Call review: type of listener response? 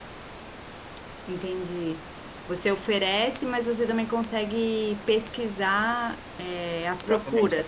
taking over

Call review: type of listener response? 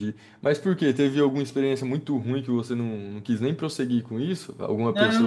taking over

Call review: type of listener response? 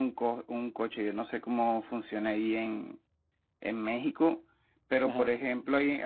listening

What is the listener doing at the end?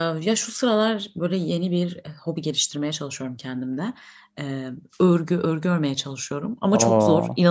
listening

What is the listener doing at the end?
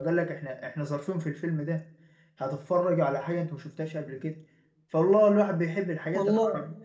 listening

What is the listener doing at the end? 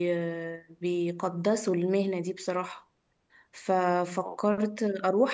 listening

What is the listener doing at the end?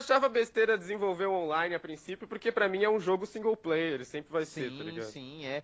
taking over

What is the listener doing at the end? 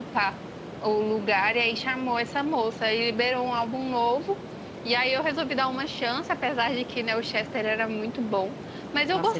taking over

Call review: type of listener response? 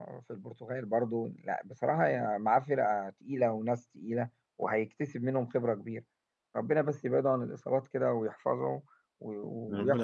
taking over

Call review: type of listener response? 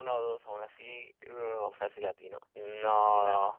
taking over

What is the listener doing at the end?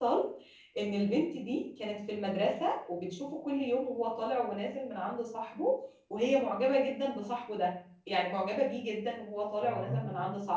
listening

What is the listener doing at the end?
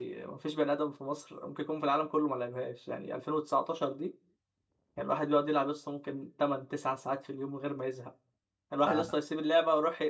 listening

